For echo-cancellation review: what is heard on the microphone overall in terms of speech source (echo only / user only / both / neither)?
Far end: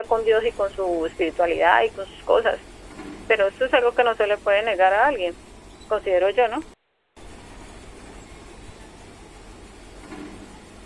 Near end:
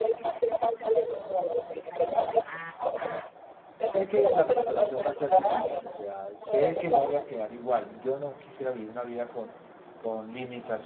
both